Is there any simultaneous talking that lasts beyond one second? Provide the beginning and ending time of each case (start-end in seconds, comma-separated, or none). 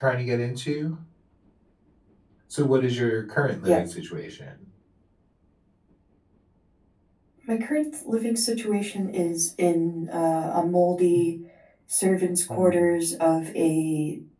none